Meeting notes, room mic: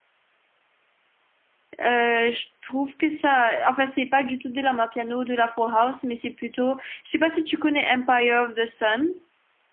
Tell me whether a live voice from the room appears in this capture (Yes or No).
Yes